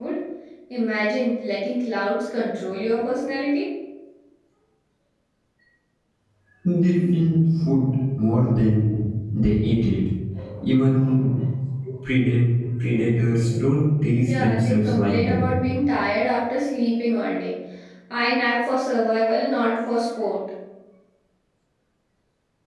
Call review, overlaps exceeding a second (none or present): present